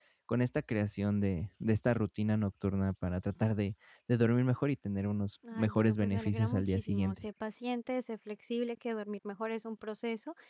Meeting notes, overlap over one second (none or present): present